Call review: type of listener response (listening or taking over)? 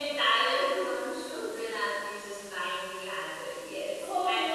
taking over